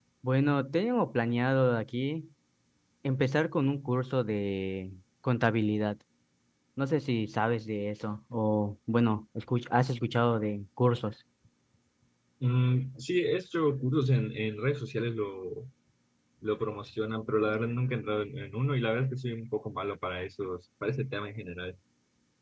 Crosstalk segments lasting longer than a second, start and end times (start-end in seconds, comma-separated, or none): none